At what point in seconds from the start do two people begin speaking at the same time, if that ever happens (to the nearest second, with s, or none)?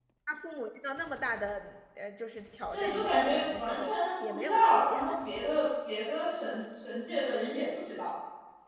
3 s